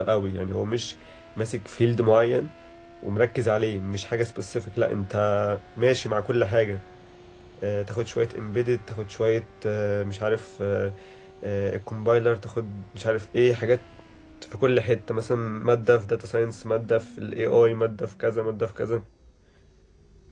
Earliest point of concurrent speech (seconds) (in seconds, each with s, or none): none